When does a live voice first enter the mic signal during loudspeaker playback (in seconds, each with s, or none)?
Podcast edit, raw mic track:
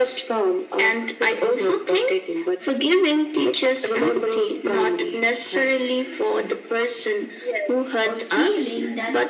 8.0 s